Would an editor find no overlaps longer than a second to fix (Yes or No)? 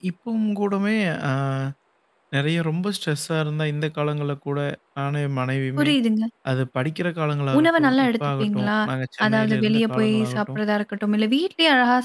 No